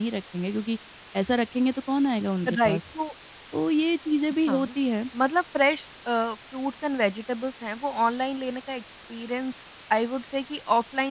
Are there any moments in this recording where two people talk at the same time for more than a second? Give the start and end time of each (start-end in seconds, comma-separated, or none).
none